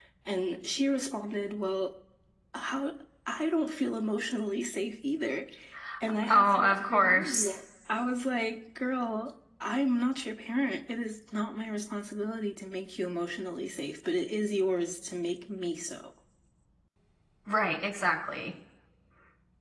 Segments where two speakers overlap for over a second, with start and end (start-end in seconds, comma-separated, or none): 6.3-7.5